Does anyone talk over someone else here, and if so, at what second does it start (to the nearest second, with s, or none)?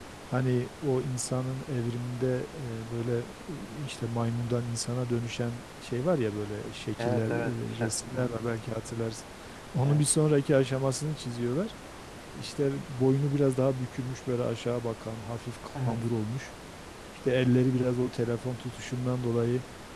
7 s